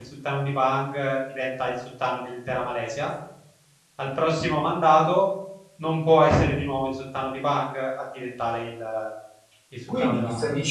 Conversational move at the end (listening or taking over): taking over